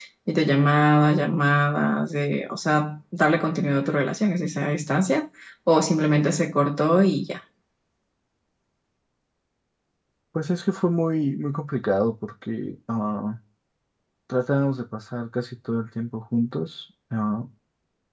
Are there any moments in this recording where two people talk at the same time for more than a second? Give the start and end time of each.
none

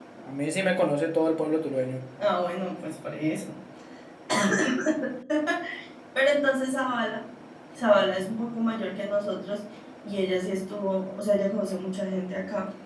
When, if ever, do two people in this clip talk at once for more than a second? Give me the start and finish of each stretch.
none

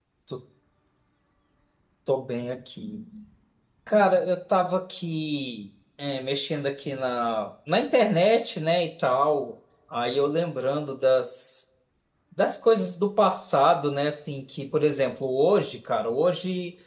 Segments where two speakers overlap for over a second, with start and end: none

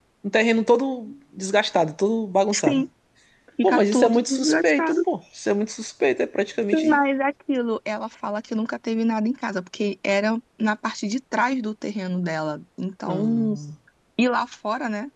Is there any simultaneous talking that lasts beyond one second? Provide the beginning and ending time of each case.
3.6-5.0

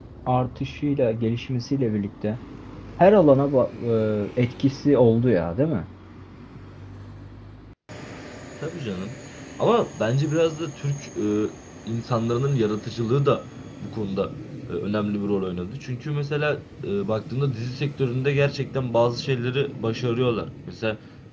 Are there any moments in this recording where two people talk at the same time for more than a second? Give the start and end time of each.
none

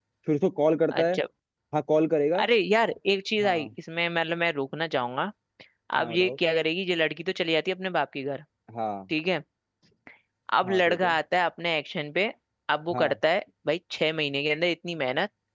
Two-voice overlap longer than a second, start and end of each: none

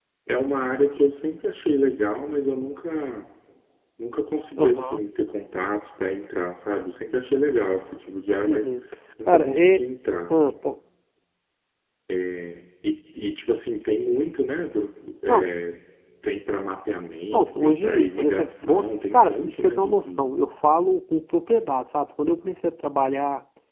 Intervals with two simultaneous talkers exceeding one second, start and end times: 17.3-20.3

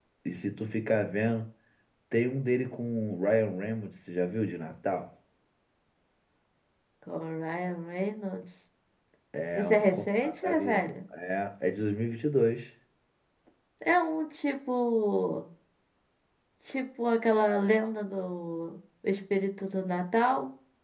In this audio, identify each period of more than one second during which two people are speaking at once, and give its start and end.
9.5-10.9

